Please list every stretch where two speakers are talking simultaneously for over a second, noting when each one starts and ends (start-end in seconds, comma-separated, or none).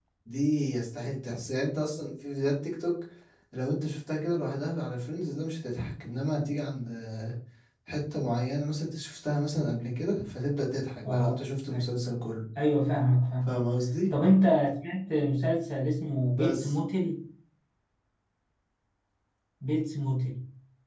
none